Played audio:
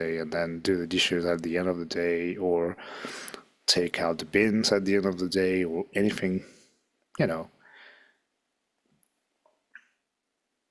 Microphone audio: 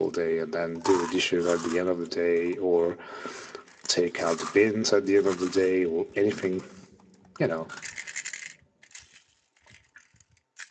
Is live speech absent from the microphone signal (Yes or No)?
Yes